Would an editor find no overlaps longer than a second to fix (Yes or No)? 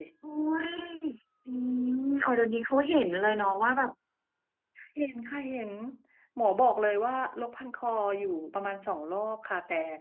Yes